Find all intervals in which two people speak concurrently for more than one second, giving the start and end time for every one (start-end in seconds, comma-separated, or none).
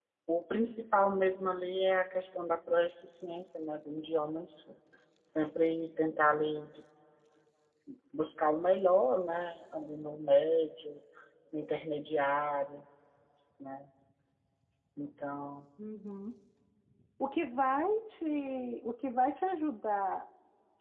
none